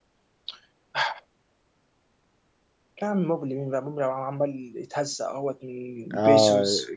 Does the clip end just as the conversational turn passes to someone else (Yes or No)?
Yes